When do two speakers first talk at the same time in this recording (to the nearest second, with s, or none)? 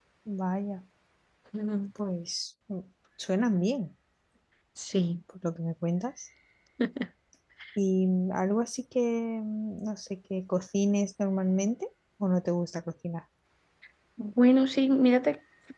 none